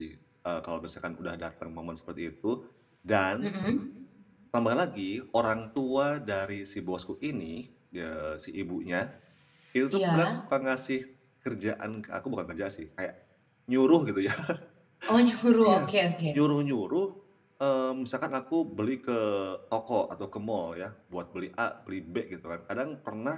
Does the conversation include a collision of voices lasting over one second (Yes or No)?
No